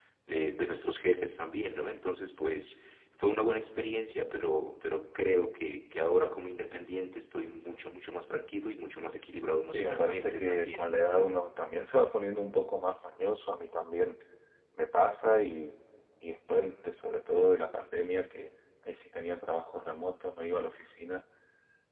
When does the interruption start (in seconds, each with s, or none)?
9.7 s